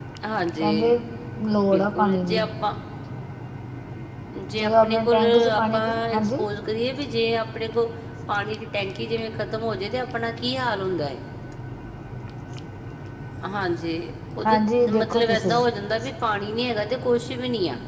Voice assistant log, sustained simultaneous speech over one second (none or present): present